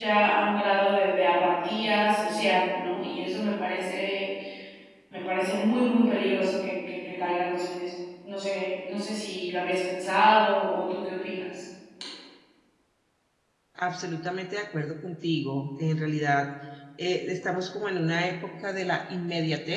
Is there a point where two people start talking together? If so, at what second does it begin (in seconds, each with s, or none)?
none